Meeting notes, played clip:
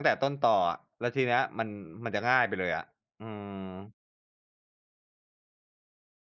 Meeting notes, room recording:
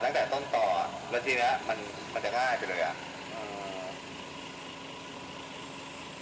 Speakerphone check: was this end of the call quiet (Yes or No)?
Yes